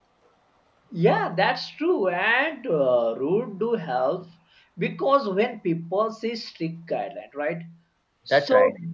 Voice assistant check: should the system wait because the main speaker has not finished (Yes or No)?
Yes